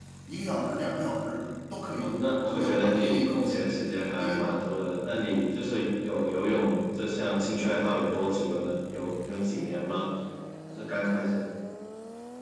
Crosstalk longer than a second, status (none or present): present